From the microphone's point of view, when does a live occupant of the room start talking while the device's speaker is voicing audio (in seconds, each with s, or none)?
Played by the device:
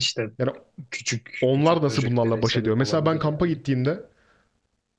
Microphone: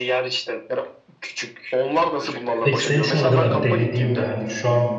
2.6 s